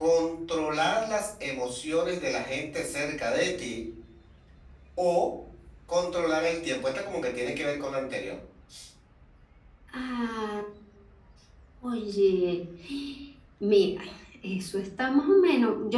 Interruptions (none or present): none